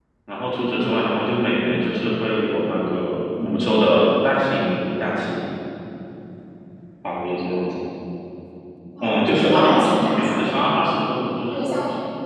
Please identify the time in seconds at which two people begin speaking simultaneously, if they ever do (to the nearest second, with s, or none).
9 s